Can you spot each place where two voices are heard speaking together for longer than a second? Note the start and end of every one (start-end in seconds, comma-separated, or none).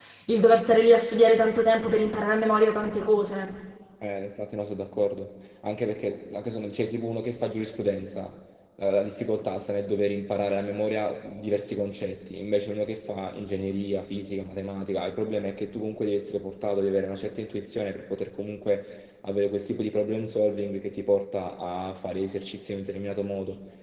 none